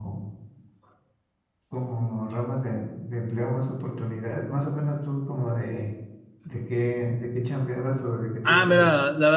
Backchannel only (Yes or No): No